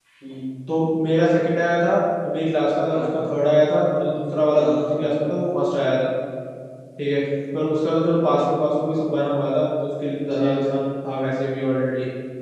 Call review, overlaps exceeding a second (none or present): none